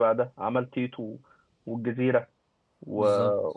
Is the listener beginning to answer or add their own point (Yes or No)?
No